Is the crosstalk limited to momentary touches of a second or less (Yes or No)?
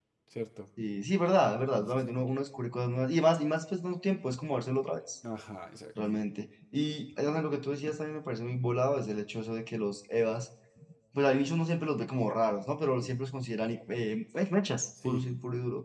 Yes